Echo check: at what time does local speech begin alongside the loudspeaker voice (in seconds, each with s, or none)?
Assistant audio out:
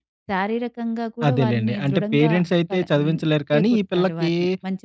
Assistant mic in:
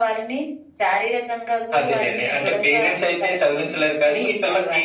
none